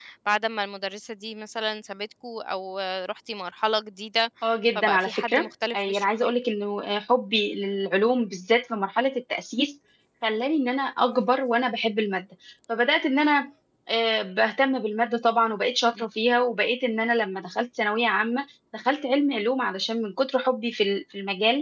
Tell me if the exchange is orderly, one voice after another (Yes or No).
No